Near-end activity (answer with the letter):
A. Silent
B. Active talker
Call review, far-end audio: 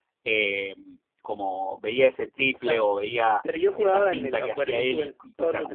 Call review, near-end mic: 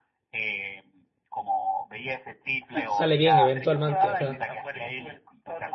B